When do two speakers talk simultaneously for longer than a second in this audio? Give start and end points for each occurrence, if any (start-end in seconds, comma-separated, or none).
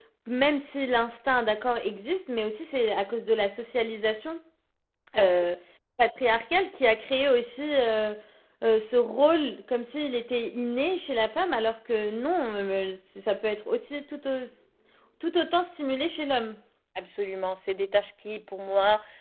none